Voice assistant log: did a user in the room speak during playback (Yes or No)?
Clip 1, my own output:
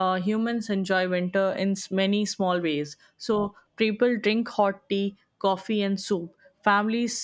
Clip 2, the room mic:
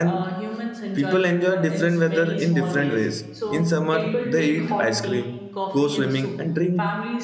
Yes